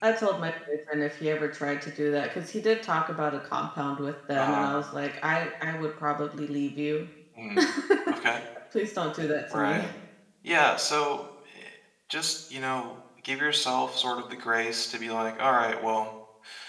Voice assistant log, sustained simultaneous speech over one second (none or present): none